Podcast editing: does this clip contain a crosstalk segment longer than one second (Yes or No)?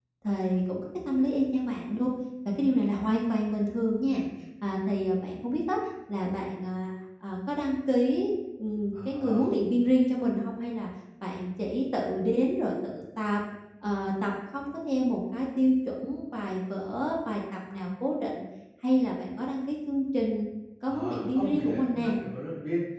Yes